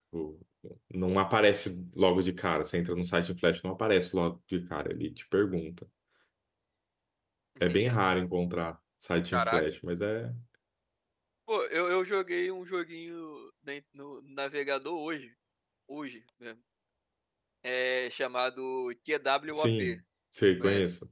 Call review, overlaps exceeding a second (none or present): none